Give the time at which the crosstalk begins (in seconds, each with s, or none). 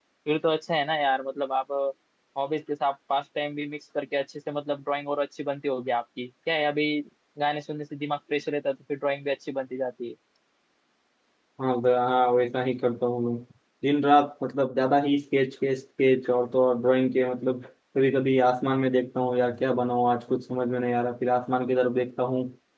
none